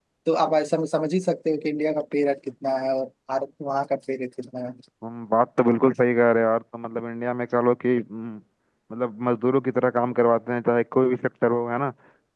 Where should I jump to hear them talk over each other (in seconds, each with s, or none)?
none